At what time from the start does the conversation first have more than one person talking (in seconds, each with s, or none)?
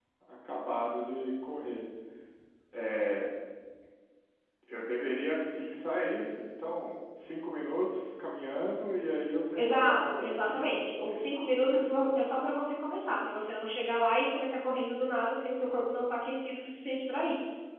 9.6 s